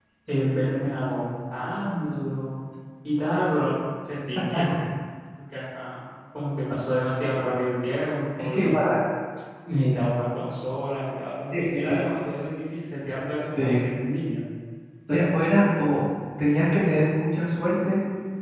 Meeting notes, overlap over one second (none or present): none